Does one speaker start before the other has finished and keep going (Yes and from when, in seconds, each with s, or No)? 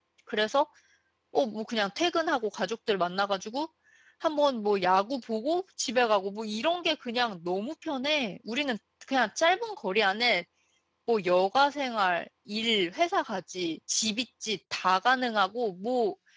No